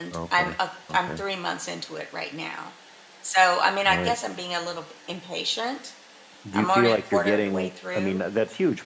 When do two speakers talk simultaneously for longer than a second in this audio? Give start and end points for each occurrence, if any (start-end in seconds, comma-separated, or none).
6.5-8.2